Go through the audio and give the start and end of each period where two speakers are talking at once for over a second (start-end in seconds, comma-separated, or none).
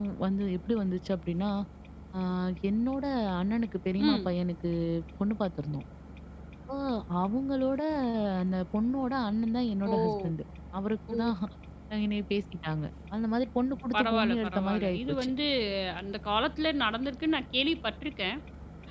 13.9-15.3